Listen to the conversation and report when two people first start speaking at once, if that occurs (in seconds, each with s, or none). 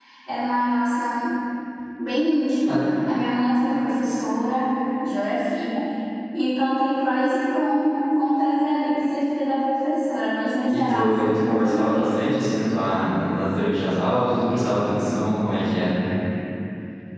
10.7 s